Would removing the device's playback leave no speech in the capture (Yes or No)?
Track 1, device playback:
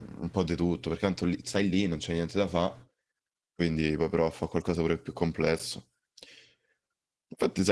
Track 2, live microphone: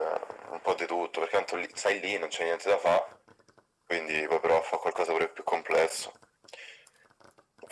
Yes